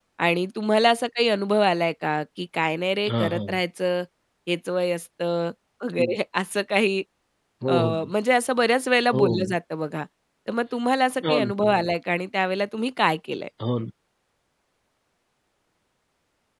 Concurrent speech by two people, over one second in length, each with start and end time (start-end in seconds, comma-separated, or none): none